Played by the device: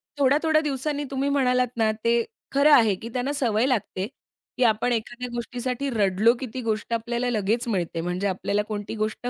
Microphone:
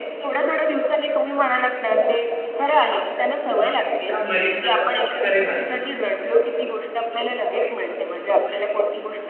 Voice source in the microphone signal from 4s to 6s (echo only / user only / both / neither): both